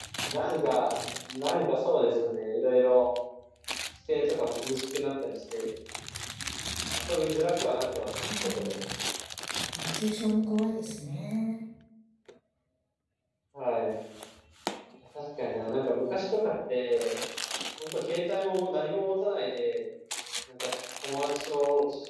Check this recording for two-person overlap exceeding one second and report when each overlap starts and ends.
none

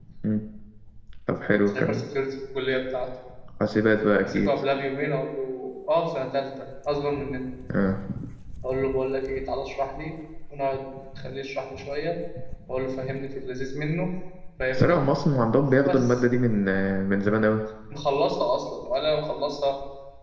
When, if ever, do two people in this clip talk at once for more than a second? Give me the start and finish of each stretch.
none

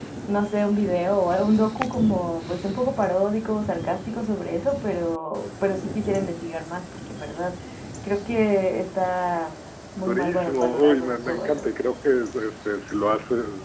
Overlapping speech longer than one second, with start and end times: 10.0-11.5

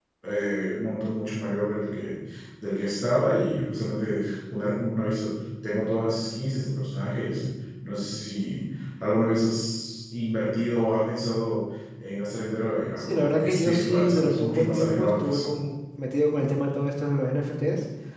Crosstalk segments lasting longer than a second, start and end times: 13.0-15.4

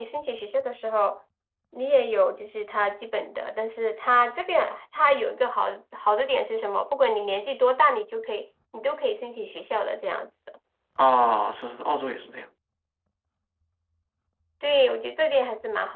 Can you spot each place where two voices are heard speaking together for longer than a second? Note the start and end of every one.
none

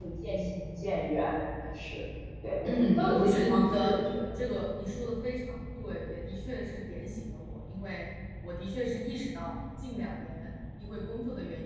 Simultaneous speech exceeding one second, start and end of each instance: 2.6-3.9

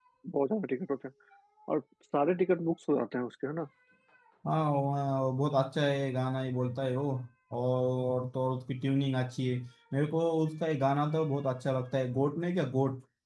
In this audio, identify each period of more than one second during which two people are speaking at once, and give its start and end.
none

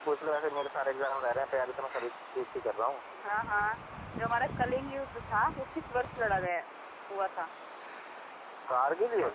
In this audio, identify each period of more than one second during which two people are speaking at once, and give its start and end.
none

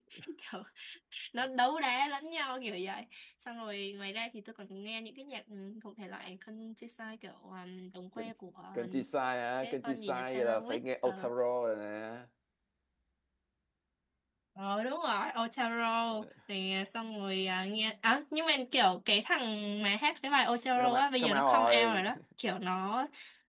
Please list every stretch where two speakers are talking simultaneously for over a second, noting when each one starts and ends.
9.6-11.3, 20.8-22.0

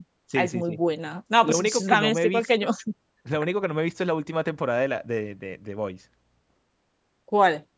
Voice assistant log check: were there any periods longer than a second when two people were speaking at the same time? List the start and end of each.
1.5-2.7

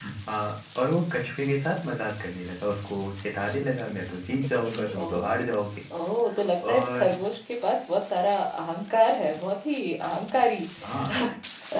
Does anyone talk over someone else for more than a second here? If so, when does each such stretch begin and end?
none

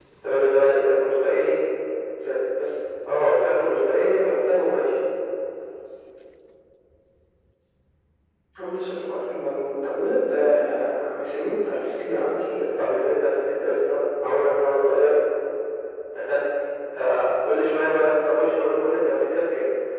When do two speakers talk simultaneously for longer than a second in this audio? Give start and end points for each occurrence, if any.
none

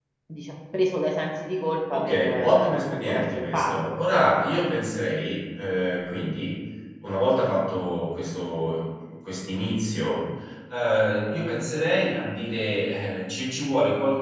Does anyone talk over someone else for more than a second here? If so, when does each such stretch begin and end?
1.9-3.9

